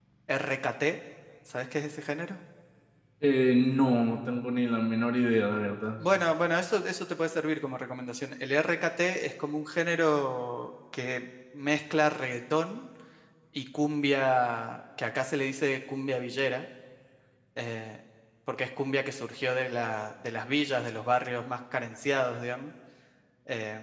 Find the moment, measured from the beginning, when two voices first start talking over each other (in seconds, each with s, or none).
none